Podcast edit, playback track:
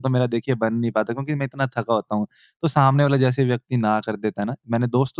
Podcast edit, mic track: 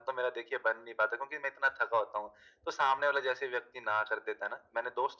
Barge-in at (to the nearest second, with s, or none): none